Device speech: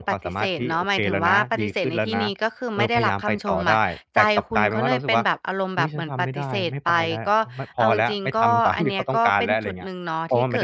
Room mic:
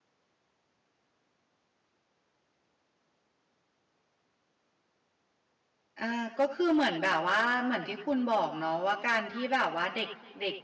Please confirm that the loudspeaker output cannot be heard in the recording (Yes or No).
Yes